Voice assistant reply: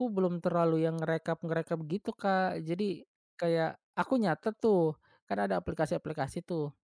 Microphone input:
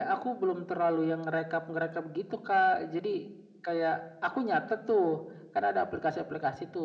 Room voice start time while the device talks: none

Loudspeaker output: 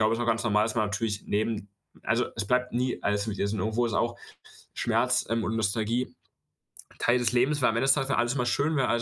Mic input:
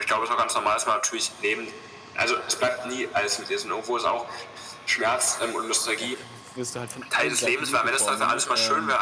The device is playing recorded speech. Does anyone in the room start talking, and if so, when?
6.0 s

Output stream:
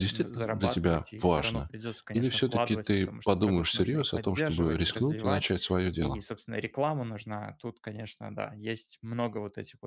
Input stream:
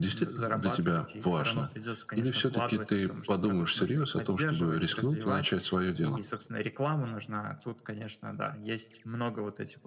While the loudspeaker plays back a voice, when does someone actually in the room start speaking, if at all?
none

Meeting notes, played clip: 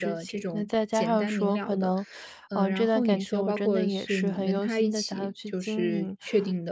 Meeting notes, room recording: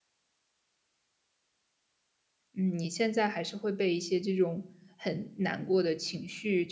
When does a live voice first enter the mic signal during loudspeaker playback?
2.5 s

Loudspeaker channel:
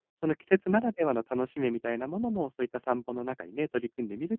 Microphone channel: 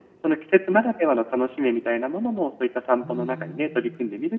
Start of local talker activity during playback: 2.9 s

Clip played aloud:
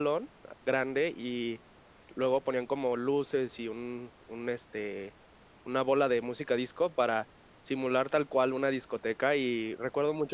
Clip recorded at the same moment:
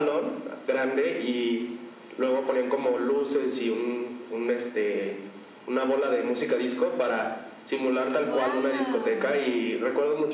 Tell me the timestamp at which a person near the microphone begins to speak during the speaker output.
8.2 s

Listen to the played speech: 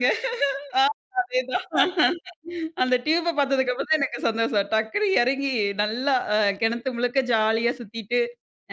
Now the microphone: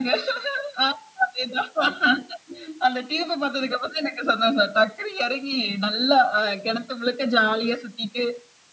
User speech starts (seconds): none

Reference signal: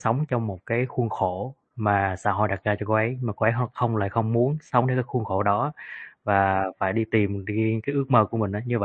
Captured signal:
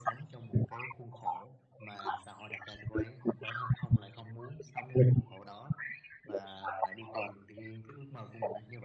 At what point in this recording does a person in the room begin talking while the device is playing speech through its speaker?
none

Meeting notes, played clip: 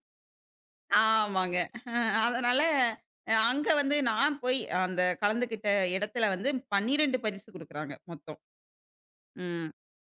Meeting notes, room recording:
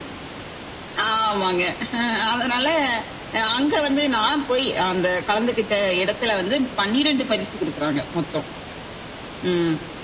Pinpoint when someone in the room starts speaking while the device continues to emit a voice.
none

